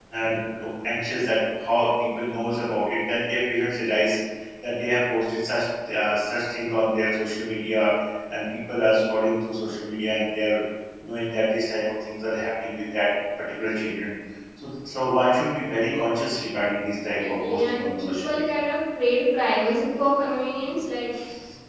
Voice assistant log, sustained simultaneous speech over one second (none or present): present